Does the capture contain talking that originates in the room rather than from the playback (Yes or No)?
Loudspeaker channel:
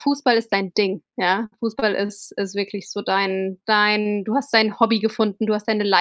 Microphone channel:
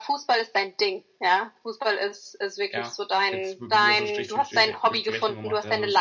Yes